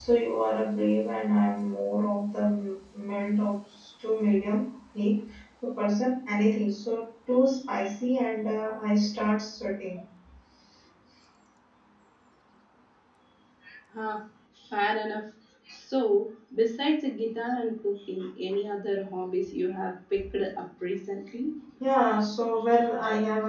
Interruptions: none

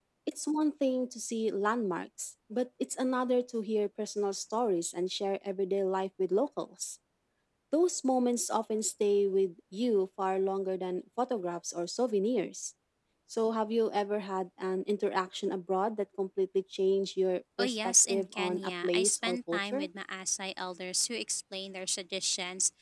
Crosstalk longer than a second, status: present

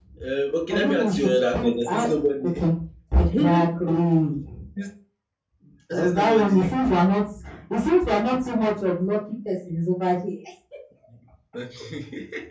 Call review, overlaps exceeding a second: present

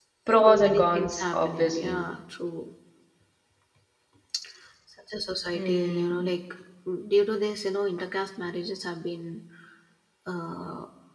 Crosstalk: present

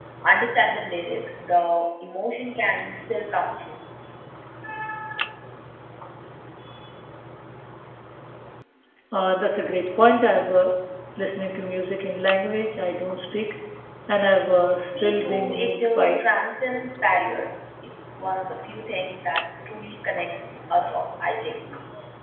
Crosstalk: present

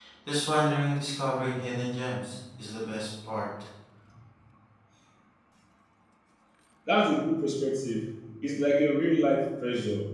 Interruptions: none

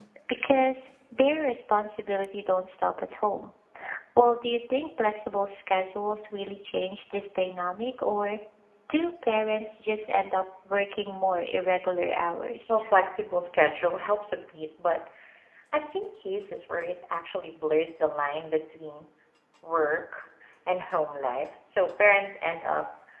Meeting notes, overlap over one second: none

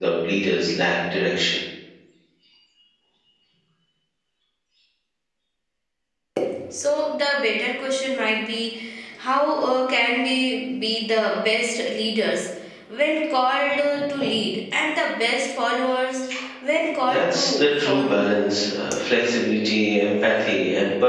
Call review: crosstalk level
present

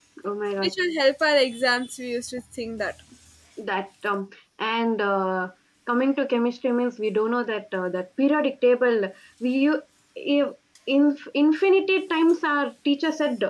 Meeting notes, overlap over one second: none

